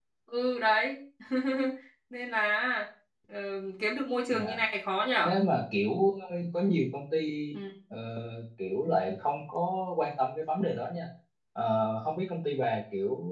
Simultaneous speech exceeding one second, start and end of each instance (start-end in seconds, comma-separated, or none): none